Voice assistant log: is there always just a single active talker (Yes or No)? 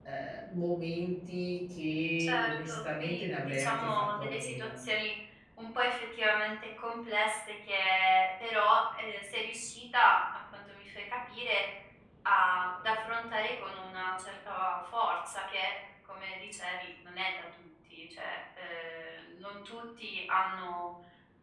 No